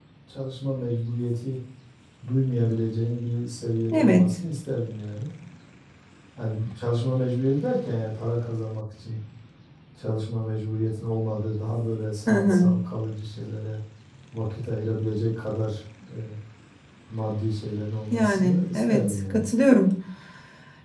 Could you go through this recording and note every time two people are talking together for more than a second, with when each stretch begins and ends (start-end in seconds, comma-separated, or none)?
18.1-19.4